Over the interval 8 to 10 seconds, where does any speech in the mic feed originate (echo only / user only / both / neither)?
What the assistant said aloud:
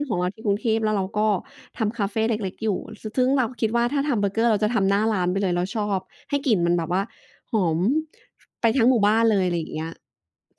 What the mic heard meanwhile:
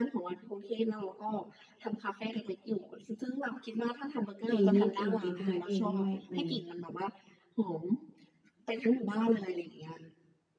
echo only